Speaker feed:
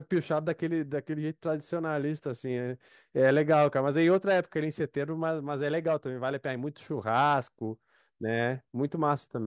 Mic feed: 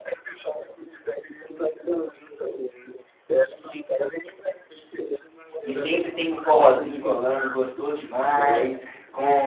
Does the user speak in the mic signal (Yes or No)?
Yes